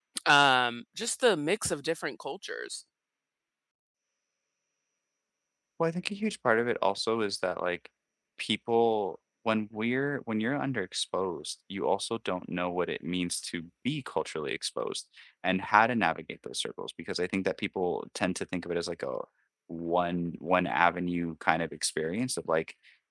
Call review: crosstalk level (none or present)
none